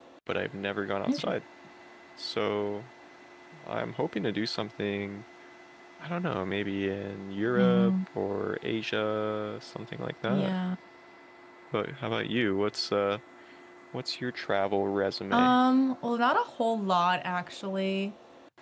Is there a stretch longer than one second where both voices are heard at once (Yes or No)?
No